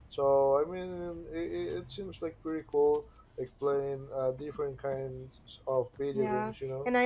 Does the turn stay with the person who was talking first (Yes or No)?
No